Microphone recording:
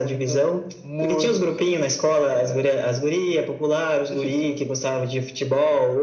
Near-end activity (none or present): none